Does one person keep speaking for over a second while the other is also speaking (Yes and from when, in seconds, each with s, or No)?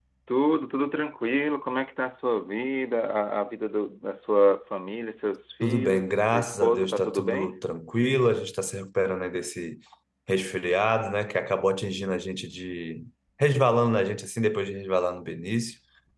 Yes, from 5.6 s